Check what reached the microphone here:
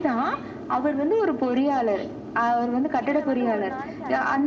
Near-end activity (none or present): present